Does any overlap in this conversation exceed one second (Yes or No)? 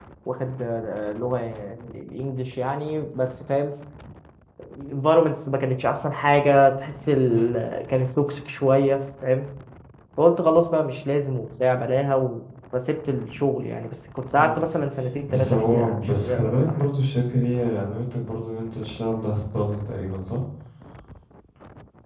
Yes